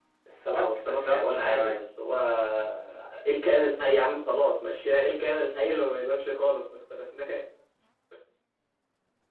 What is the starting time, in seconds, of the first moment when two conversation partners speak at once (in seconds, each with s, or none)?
0.5 s